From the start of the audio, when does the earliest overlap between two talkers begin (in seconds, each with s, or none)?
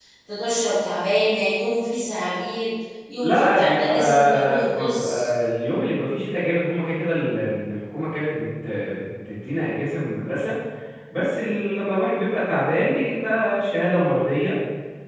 3.2 s